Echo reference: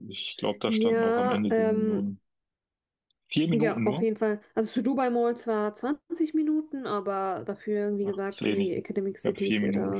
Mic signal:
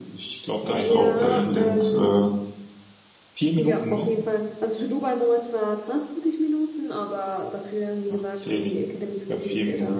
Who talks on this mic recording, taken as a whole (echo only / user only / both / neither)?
both